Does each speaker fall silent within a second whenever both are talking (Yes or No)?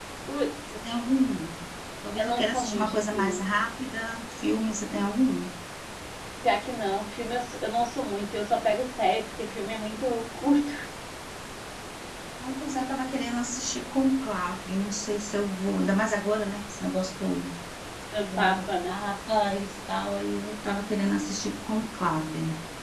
No